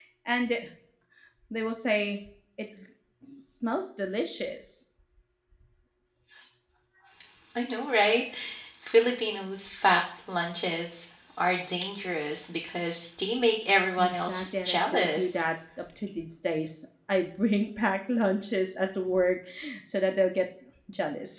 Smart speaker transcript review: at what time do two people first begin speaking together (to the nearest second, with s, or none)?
14 s